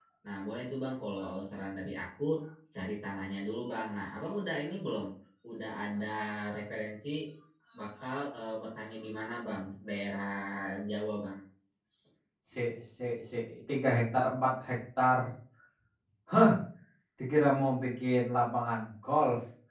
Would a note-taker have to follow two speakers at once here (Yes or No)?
No